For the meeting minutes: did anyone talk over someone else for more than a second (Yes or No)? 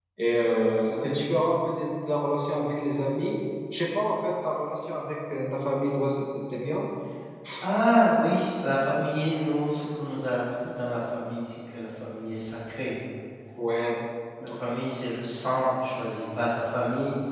No